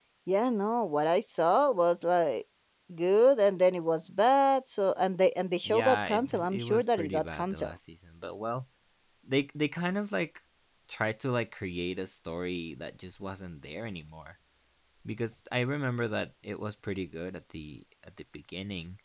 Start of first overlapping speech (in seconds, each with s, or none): 5.6 s